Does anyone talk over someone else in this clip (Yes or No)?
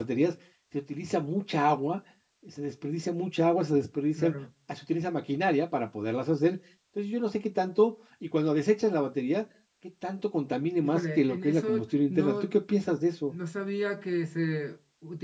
Yes